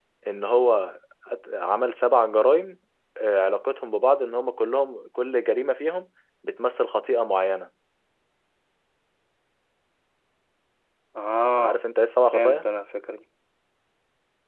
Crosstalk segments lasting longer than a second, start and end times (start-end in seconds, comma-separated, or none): none